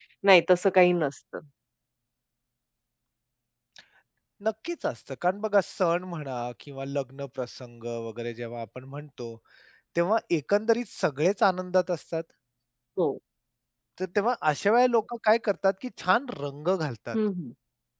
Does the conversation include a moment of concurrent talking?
No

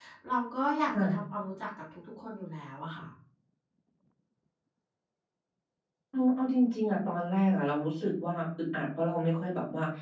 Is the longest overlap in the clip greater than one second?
No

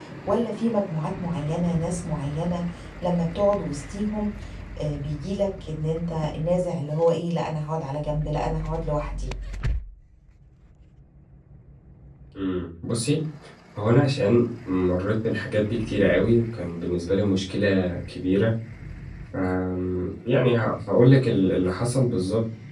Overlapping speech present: No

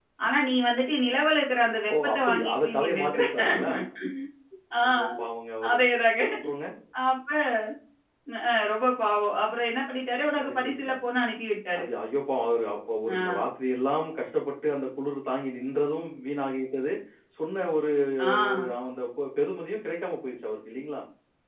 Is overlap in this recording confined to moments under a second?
No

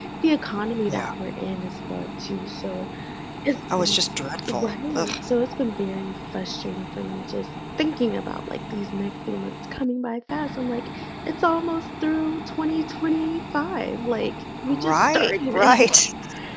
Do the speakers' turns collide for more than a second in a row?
Yes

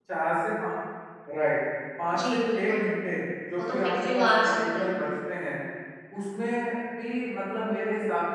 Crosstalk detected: Yes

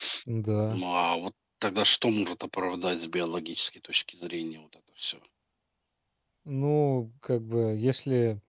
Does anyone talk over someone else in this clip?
No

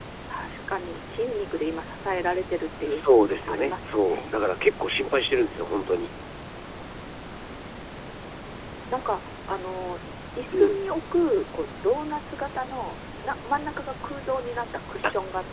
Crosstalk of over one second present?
Yes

